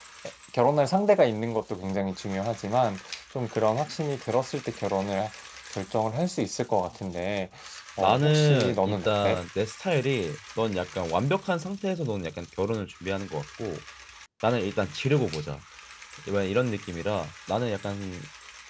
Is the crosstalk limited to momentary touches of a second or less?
No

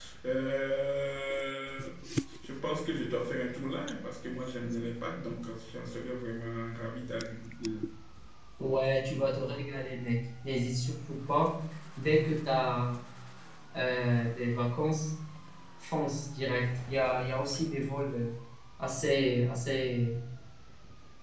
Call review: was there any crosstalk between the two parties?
No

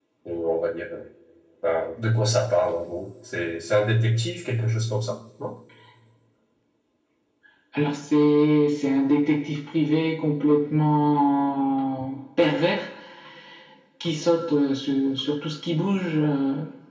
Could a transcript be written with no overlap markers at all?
Yes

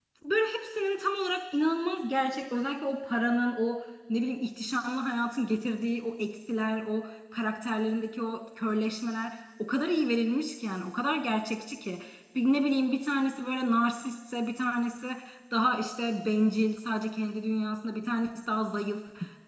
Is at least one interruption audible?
No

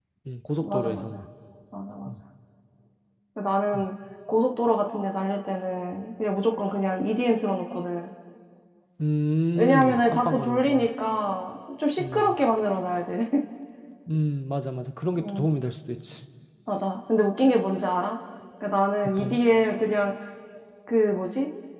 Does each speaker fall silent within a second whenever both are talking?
No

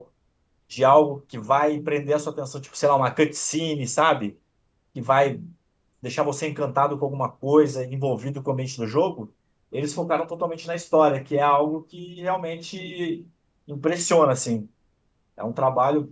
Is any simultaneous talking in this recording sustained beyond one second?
No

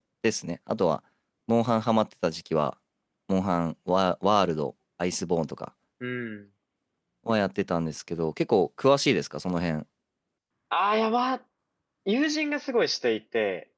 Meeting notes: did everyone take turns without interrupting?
Yes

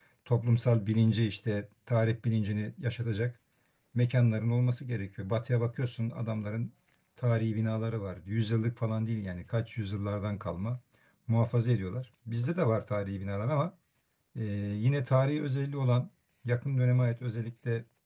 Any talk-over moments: No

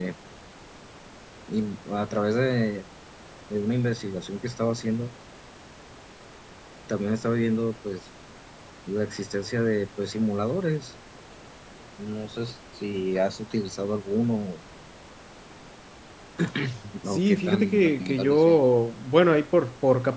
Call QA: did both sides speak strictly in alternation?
No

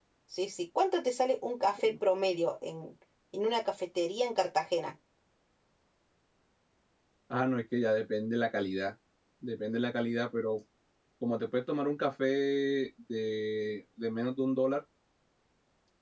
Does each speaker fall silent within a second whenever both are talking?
Yes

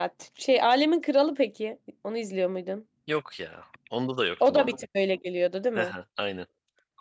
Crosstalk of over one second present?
No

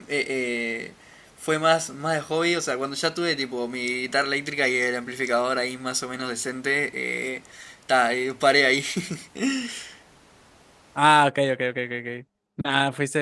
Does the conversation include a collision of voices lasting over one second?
No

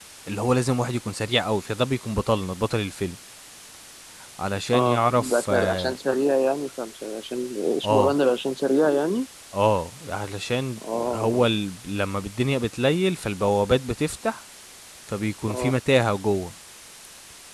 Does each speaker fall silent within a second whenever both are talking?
No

